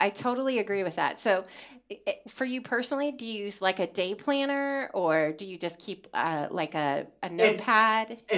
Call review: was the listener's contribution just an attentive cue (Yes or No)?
No